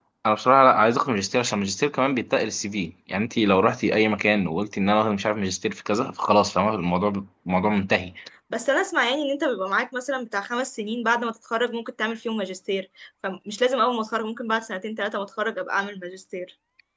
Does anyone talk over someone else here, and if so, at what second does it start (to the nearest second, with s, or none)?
none